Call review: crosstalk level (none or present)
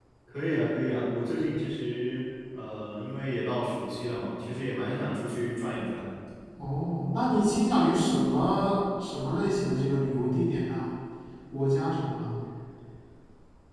none